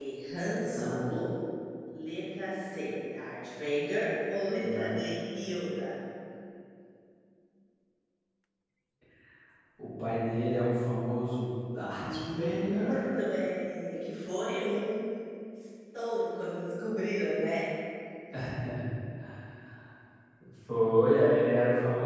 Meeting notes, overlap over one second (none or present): present